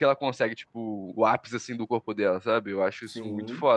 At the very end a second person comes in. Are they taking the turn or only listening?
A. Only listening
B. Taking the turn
A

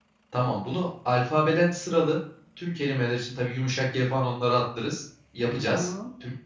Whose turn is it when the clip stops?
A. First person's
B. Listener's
A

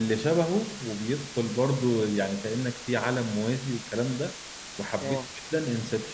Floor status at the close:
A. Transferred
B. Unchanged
B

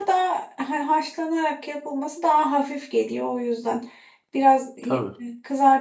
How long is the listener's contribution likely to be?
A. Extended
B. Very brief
B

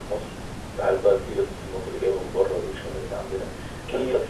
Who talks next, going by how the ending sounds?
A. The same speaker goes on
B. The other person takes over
A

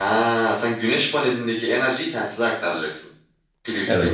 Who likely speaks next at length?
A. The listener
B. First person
A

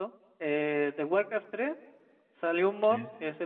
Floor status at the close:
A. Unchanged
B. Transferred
A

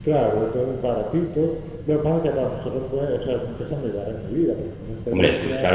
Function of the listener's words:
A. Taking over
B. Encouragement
A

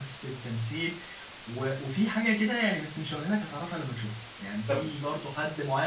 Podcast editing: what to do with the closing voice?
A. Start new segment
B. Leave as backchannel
B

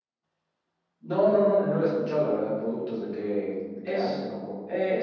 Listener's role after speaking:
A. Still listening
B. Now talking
B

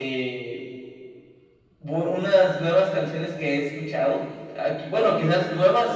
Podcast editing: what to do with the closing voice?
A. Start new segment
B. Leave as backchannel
B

